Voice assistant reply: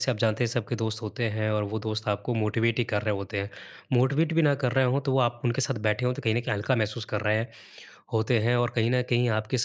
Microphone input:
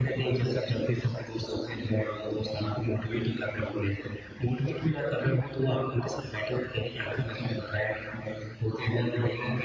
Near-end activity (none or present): none